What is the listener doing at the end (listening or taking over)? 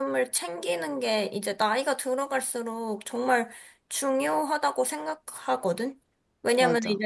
listening